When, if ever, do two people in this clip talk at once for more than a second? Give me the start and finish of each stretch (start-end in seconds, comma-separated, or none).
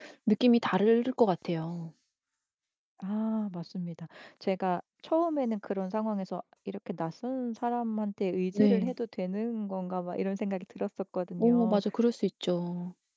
none